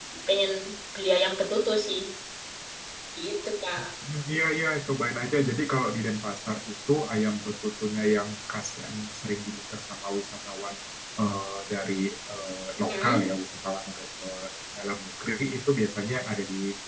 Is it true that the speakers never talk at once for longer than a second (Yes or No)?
Yes